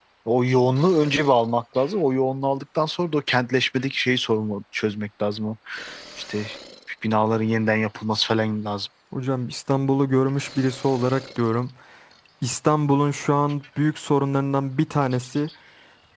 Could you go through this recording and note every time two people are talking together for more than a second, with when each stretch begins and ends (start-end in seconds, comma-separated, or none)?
none